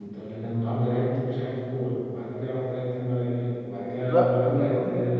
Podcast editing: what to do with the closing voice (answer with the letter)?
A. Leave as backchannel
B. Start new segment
B